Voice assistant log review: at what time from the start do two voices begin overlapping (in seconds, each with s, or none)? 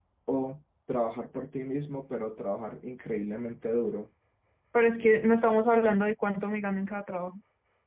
none